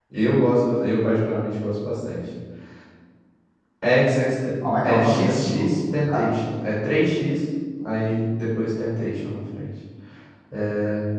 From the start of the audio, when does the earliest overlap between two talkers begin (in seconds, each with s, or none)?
4.8 s